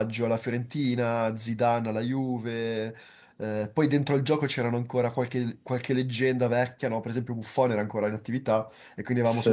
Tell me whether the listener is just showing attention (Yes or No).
Yes